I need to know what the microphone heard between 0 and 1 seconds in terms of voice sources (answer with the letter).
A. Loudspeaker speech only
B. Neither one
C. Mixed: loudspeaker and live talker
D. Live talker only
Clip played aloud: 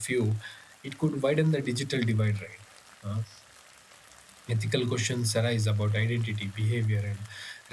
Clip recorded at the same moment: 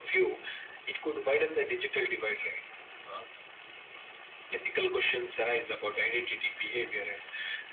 A